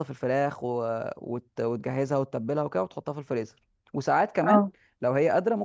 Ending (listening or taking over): listening